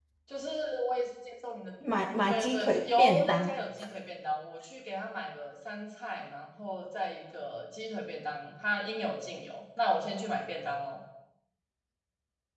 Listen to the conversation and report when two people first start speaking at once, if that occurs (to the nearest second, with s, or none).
2 s